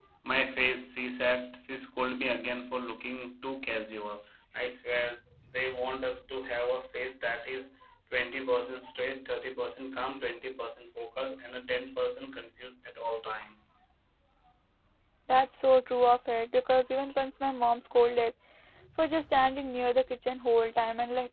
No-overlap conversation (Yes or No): Yes